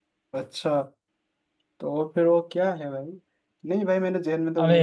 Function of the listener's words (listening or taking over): listening